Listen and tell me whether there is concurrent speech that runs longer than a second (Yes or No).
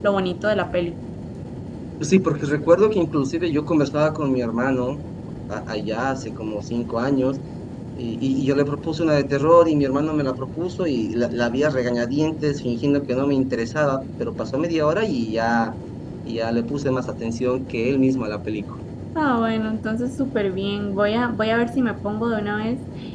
No